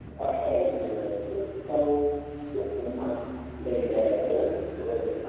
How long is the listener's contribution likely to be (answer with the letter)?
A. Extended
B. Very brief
B